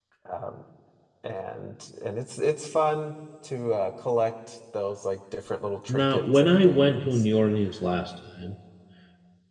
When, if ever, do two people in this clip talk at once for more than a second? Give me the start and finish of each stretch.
5.9-7.2

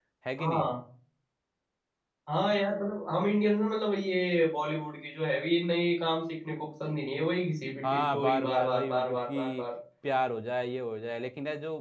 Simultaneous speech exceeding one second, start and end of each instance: 7.8-9.6

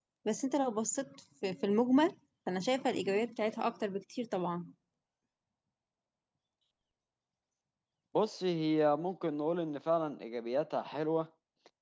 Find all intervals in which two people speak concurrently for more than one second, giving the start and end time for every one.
none

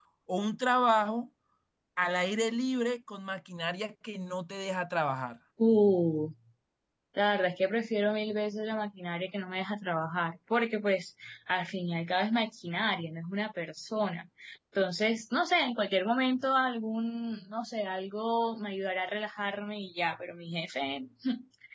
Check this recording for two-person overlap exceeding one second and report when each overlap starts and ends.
none

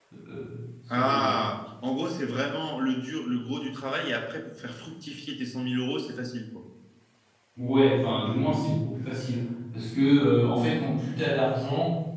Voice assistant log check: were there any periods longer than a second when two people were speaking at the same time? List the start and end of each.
none

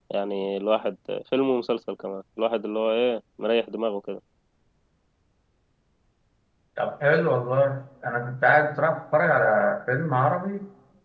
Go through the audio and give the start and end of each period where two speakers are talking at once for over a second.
none

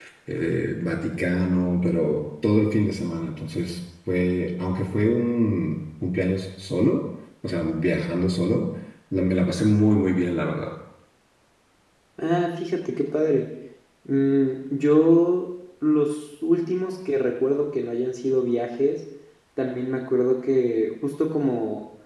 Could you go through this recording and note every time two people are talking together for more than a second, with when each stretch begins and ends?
none

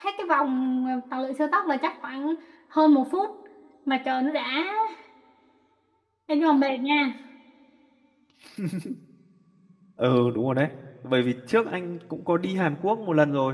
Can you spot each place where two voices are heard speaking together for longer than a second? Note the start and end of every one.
none

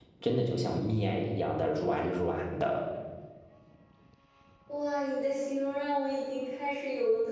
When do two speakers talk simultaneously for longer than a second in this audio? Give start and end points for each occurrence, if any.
none

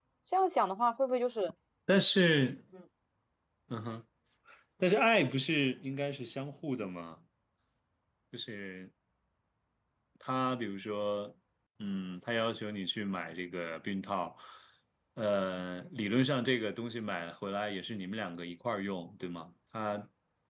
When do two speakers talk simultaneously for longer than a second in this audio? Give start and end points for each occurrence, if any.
none

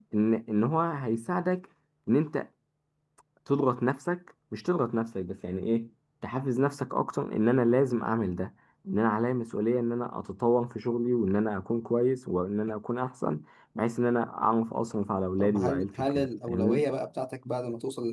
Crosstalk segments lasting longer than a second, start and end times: 15.4-16.8

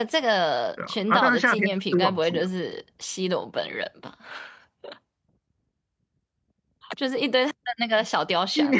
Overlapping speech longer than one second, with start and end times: 0.9-2.5

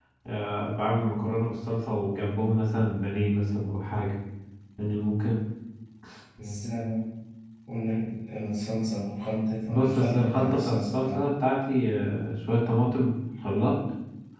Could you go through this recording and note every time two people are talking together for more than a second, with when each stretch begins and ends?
9.7-11.2

